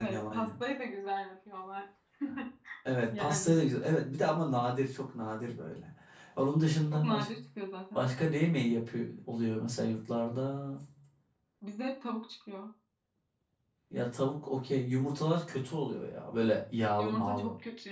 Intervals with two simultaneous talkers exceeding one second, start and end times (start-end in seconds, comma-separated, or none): none